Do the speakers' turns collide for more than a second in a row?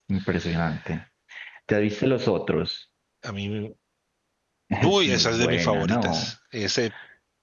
Yes, from 4.8 s

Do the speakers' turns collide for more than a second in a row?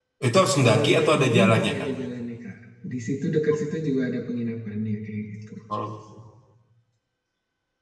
Yes, from 0.6 s

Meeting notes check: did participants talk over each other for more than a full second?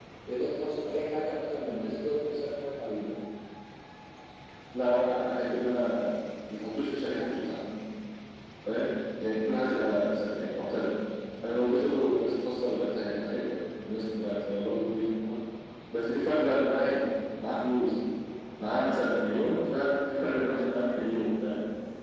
No

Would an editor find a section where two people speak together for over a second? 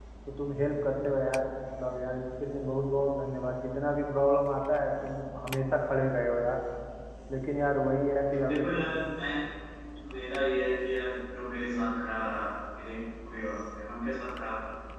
No

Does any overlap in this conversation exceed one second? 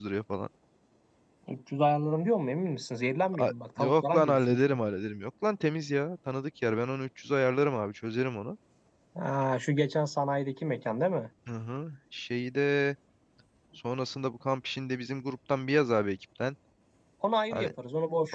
Yes, from 3.3 s

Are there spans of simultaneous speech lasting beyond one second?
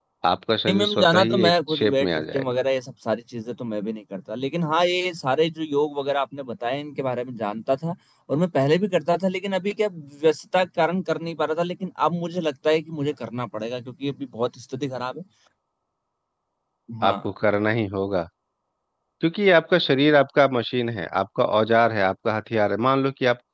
Yes, from 0.7 s

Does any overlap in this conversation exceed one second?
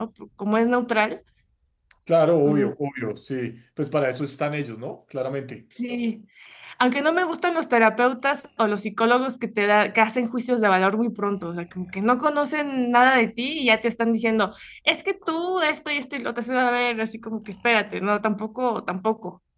No

